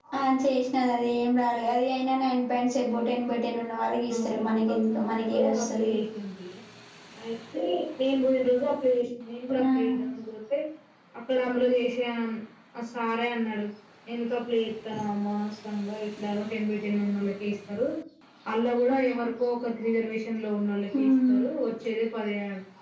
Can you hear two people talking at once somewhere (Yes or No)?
Yes